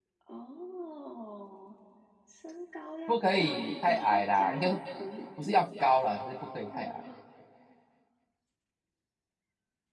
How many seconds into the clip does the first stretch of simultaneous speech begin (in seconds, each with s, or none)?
3.1 s